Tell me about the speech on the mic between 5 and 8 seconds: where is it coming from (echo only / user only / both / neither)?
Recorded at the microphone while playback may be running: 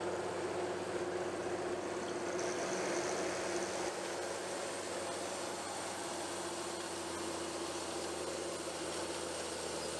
neither